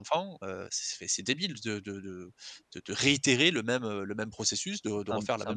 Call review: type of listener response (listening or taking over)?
taking over